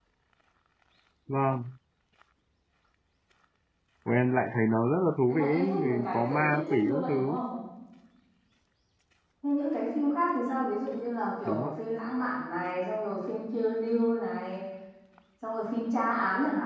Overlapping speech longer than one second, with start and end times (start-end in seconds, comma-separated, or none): 5.3-7.4